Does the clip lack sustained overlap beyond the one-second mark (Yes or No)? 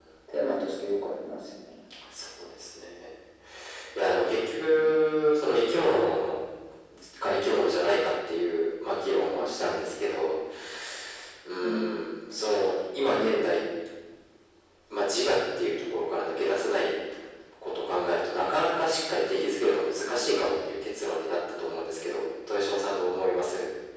Yes